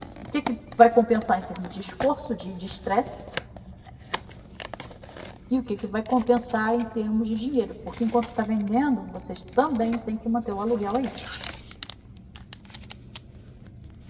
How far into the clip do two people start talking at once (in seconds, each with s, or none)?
none